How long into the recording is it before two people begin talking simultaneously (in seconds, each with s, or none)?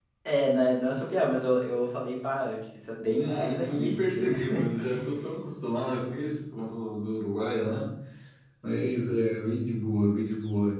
3.1 s